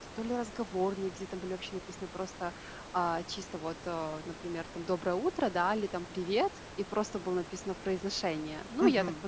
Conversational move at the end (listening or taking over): taking over